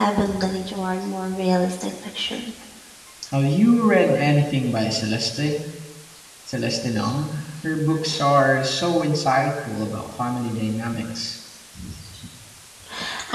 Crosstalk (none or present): none